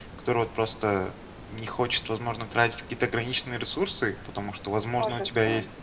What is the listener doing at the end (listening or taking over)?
listening